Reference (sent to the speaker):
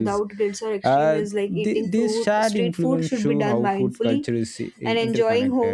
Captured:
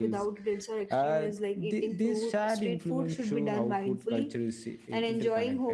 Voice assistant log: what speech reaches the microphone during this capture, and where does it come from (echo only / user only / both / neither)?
echo only